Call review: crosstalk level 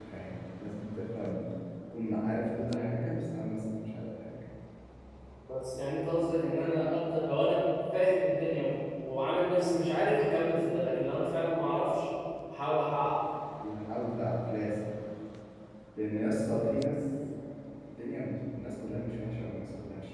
none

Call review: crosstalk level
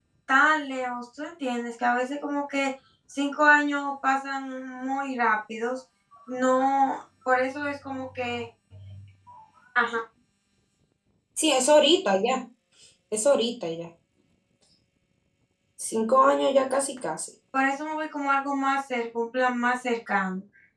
none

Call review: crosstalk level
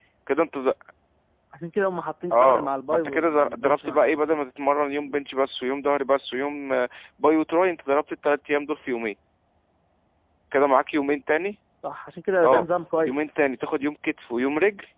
present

